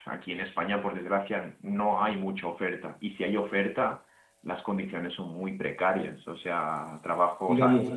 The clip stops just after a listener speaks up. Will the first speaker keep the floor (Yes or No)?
Yes